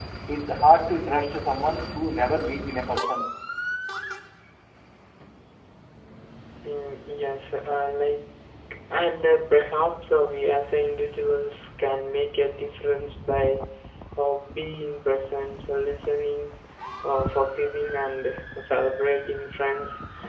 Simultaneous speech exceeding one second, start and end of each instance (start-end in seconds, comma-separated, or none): none